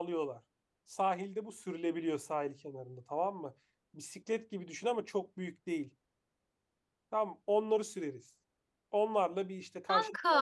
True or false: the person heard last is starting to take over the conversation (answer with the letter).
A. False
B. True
A